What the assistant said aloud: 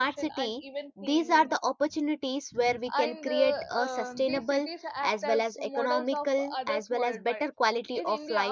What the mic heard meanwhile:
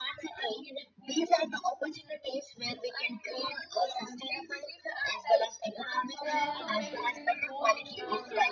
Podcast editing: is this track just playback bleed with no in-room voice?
No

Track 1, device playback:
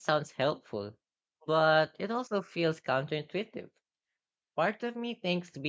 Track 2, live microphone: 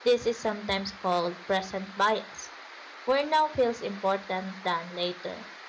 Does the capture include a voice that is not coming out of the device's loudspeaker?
Yes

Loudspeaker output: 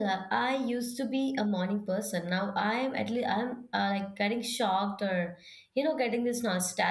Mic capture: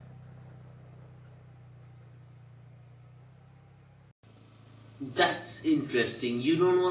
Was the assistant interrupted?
Yes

